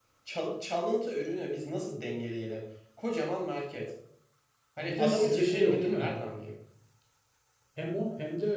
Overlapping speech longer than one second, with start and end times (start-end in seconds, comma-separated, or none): 4.8-6.1